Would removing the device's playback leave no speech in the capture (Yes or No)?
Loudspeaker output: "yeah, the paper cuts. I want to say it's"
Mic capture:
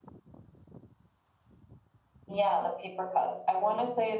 Yes